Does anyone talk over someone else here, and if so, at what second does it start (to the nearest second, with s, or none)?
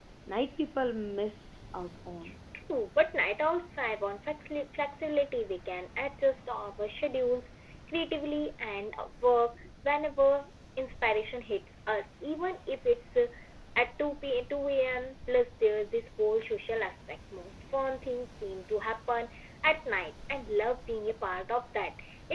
none